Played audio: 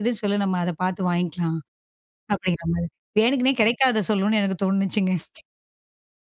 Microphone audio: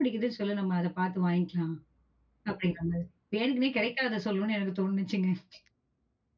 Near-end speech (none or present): none